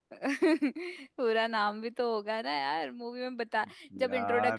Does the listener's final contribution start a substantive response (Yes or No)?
No